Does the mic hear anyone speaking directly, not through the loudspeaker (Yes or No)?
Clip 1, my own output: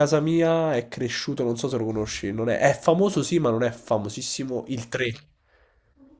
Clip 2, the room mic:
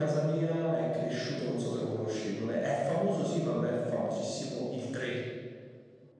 No